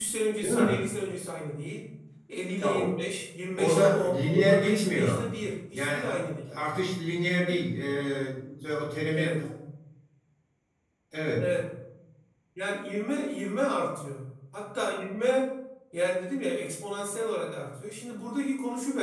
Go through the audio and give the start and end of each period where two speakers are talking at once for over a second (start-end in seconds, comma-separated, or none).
3.6-5.2